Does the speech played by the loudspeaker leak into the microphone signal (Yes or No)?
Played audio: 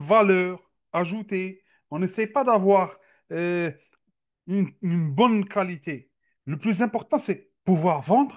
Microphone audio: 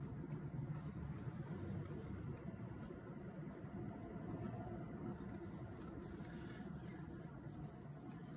No